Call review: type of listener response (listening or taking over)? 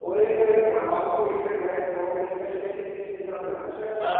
taking over